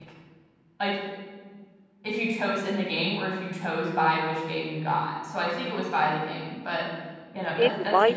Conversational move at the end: taking over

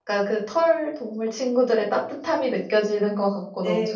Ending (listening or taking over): taking over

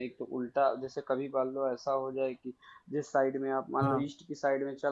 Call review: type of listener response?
listening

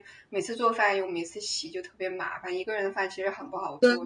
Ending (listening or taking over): taking over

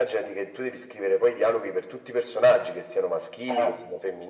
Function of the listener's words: listening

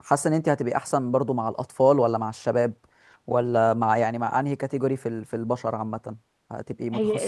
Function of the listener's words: taking over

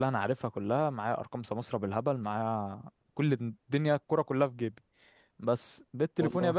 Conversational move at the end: listening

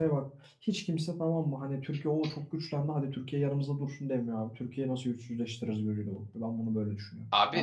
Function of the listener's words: taking over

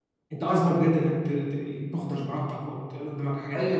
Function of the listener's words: taking over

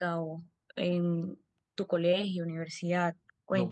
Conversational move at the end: taking over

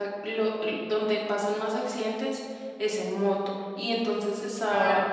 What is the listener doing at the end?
listening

